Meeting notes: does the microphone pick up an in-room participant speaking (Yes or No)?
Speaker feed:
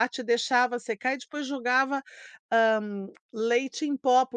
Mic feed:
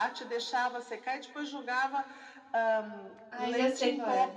Yes